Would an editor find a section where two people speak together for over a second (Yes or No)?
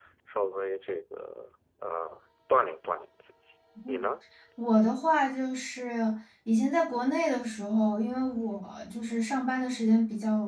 No